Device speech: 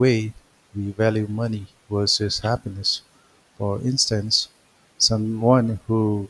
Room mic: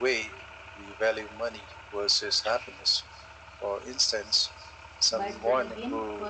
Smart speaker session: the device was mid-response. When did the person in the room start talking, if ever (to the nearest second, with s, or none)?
5 s